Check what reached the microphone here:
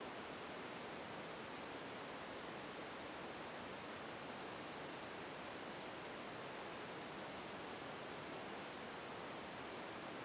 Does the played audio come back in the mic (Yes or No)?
No